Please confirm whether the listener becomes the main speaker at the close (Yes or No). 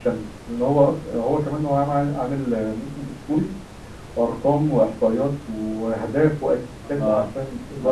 Yes